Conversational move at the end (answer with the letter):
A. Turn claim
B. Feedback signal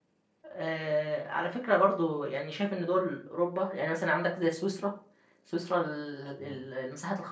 B